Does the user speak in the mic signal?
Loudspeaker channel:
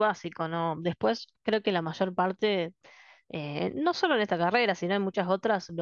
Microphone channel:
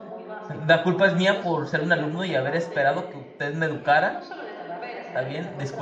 Yes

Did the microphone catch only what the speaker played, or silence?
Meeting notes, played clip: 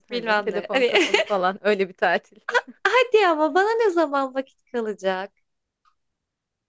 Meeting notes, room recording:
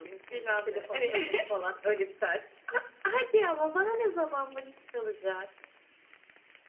Yes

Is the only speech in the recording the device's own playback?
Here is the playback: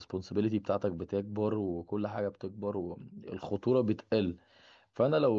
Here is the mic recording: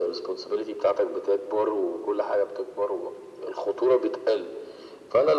Yes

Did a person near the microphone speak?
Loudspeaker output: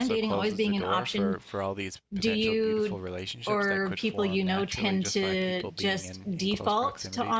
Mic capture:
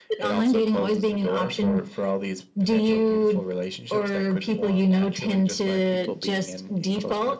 No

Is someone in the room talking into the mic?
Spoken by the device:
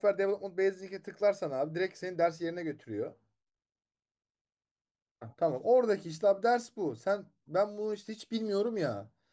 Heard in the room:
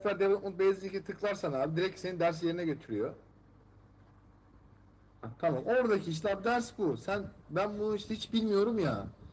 No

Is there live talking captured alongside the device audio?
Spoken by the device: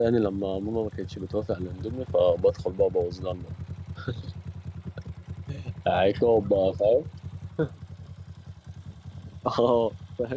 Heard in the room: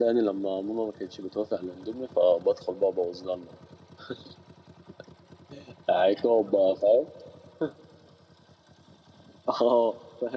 No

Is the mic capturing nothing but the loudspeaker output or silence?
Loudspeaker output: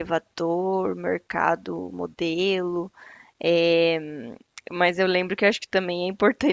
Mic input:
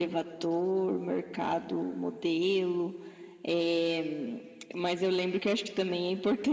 Yes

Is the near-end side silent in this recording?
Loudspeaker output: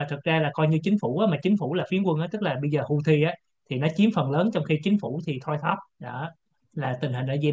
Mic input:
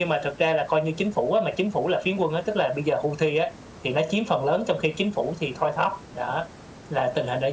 Yes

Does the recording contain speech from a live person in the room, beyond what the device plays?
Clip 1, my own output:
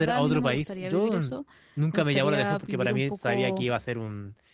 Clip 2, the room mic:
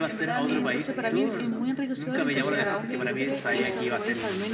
Yes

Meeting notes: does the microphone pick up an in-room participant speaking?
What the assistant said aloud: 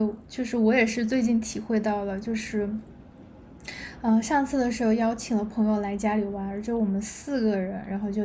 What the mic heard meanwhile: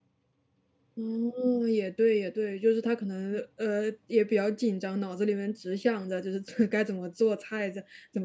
Yes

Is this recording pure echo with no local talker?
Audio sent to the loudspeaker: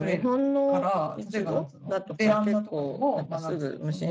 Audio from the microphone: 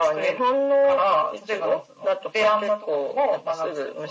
Yes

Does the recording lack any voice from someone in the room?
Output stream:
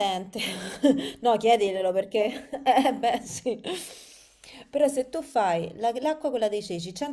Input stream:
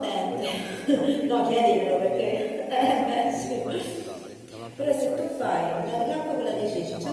No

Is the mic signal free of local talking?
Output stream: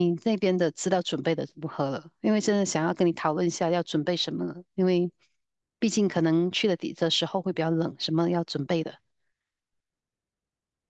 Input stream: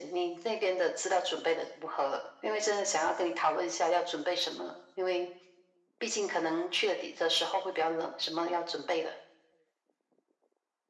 Yes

